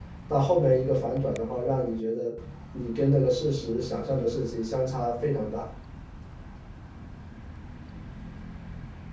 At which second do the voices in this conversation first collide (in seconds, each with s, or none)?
none